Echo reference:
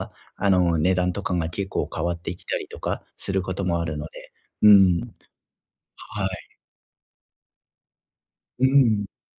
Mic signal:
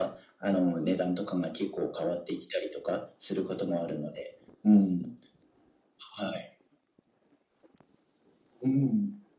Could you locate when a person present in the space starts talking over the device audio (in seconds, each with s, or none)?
none